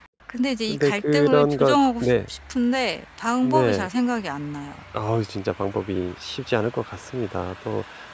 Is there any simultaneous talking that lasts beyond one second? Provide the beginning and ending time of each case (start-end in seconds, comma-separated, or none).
0.7-2.1